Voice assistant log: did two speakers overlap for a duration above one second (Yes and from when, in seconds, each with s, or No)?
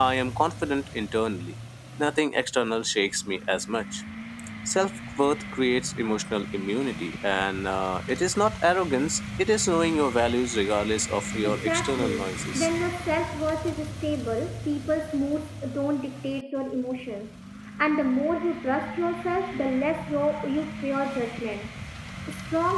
Yes, from 11.4 s